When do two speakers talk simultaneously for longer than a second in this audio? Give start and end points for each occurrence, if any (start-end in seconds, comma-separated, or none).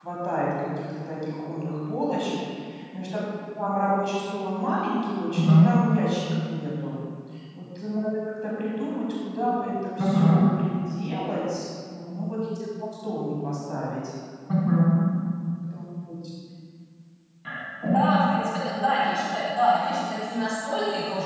none